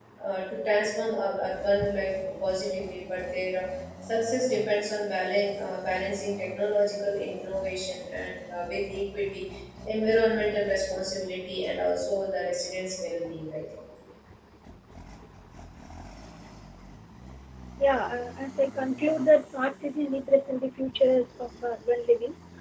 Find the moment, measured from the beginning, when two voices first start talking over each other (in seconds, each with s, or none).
none